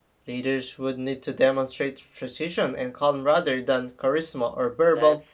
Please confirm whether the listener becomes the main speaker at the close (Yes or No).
Yes